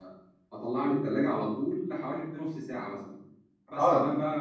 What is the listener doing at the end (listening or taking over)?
listening